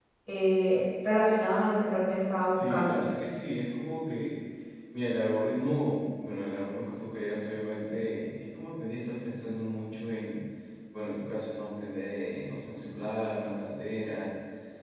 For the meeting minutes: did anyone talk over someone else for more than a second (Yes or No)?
No